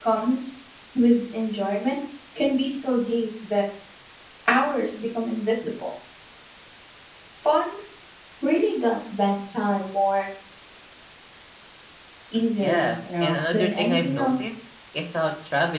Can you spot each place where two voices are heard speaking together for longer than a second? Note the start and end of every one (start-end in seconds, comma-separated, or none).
12.6-14.3